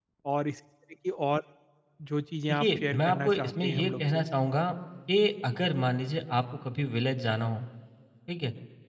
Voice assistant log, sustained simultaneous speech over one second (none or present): present